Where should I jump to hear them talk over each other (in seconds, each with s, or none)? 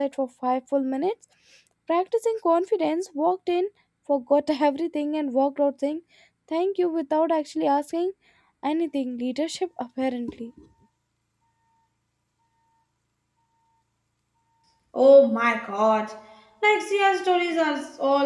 none